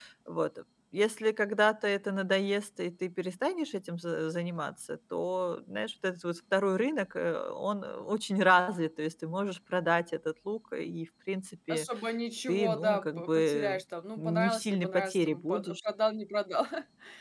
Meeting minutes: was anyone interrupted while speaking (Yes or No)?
Yes